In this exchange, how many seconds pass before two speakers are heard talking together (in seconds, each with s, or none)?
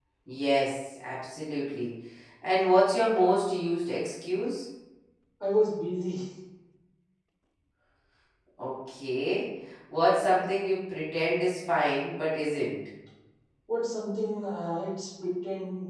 none